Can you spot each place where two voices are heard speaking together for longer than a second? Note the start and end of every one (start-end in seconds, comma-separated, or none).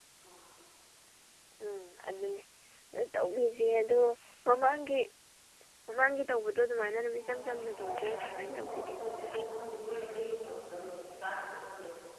7.2-8.9